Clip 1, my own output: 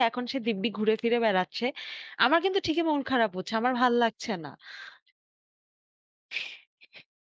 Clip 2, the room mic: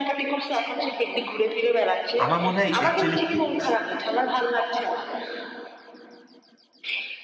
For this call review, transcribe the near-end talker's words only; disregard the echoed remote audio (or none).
আমার মনে হয় it actually huge